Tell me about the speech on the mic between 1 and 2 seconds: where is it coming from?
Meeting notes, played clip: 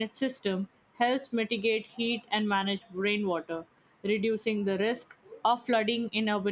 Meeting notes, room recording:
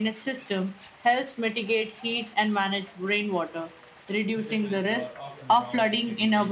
echo only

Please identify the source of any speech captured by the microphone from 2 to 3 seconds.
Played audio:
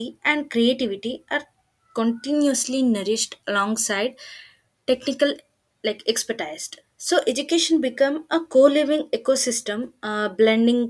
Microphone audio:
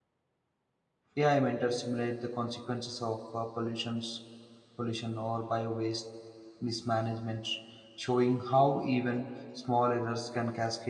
user only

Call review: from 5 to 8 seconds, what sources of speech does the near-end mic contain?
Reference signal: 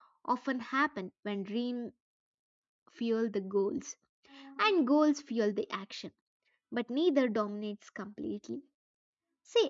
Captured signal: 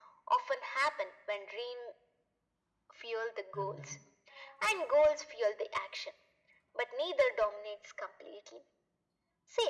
echo only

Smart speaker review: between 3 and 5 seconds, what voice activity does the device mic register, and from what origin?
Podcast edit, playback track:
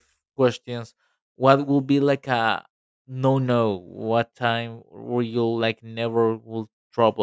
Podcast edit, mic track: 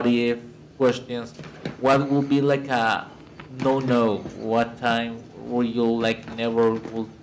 echo only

